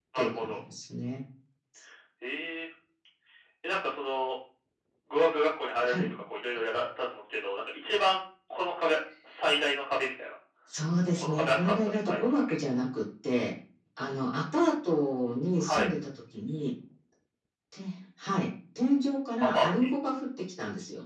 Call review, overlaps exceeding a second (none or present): present